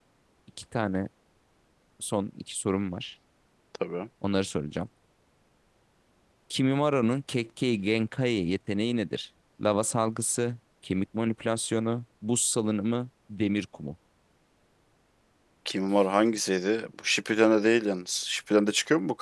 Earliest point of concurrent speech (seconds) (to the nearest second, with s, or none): none